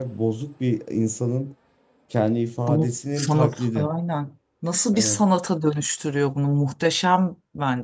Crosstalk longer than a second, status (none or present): present